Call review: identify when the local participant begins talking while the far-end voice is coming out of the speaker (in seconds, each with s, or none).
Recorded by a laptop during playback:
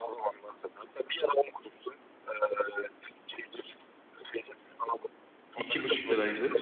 5.5 s